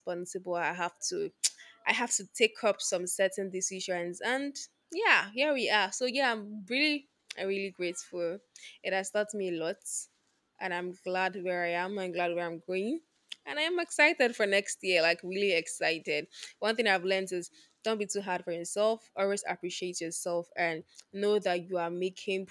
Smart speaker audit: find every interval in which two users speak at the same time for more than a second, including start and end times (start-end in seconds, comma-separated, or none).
none